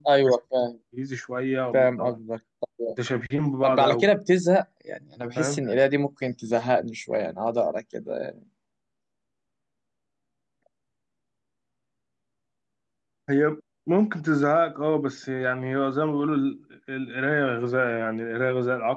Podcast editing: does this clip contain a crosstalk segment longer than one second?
No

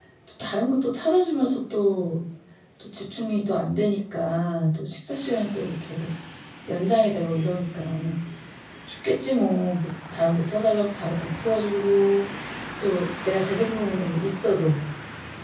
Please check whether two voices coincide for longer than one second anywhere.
No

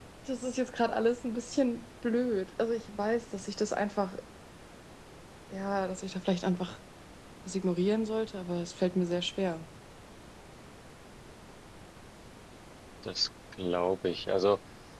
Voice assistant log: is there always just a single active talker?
Yes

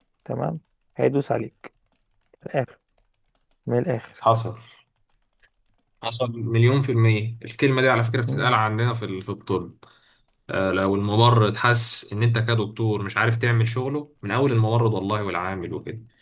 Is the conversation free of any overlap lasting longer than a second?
Yes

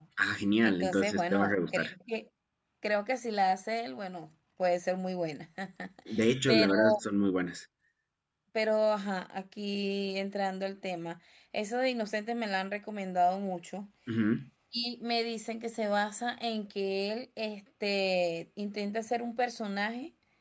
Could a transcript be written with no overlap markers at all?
No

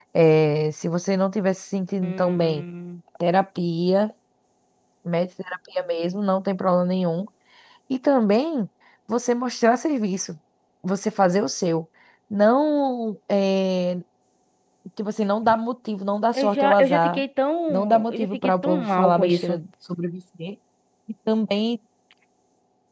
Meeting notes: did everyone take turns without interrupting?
No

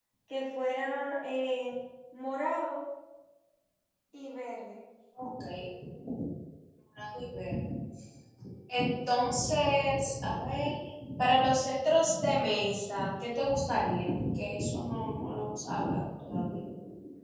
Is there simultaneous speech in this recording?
No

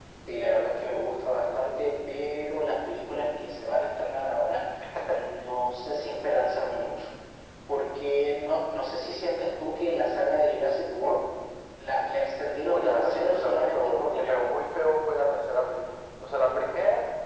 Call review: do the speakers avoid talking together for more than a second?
No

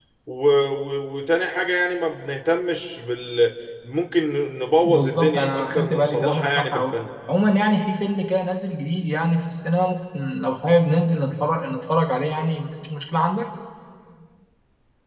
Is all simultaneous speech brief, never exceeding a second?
No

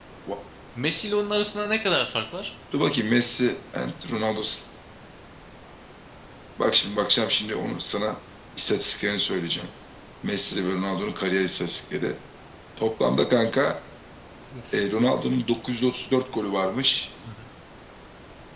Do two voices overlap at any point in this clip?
No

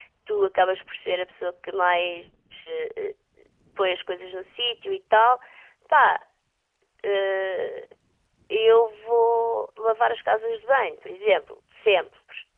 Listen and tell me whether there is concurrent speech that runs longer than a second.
No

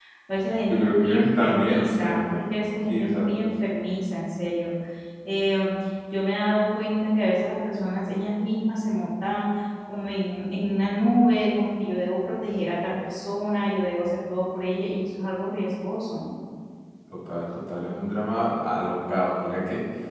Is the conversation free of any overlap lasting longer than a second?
No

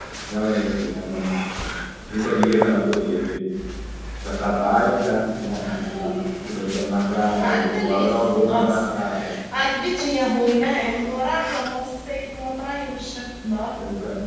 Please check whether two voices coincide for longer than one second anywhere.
Yes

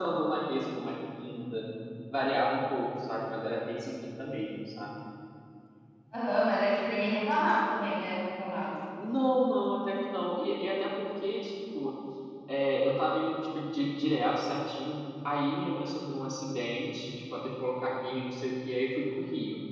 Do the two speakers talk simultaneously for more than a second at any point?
No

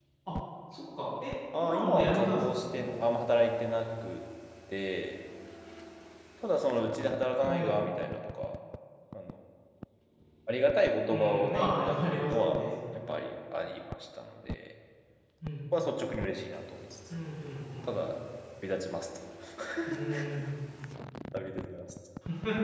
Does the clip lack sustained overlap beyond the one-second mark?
No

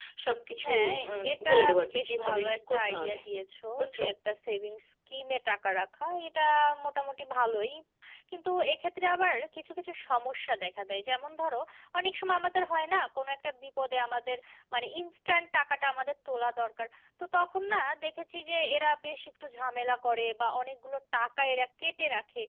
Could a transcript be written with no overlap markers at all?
No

